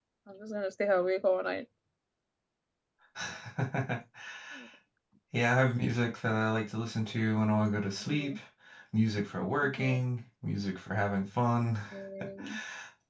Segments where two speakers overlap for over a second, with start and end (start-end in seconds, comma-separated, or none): none